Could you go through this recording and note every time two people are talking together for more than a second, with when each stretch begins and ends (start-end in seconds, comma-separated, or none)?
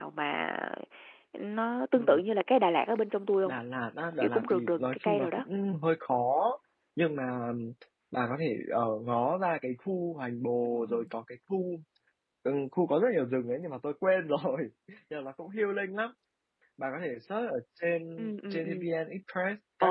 4.2-5.4